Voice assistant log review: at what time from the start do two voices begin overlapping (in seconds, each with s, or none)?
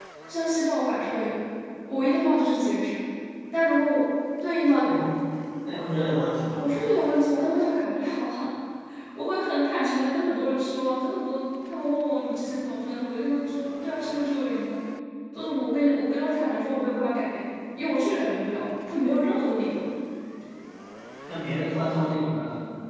none